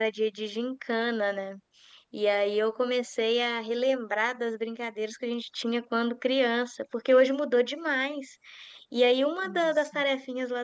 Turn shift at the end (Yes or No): No